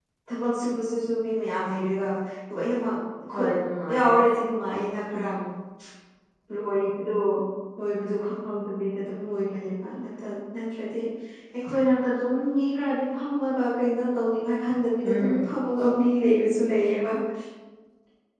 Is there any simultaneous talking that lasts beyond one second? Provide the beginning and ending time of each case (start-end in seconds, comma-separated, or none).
none